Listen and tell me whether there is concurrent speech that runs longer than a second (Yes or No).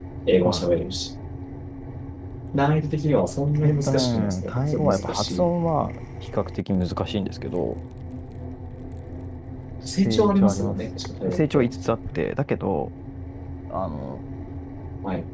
Yes